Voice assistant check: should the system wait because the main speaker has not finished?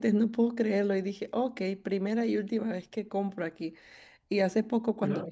Yes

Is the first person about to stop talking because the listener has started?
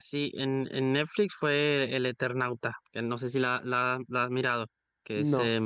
Yes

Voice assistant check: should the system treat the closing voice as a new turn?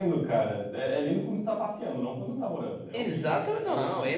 Yes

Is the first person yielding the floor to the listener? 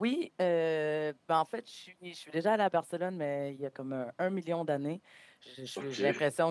No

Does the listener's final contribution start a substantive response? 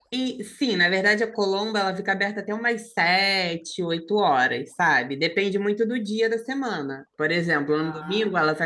No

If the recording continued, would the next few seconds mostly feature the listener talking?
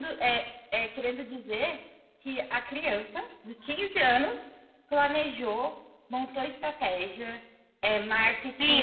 Yes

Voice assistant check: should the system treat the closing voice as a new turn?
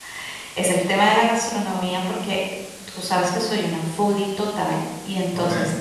No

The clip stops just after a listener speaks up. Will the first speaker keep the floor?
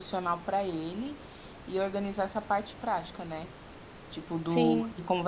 Yes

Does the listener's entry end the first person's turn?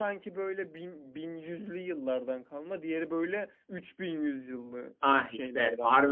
Yes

